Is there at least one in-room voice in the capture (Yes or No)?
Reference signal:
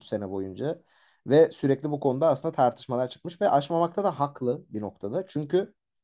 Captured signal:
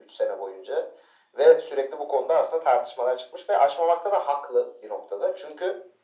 No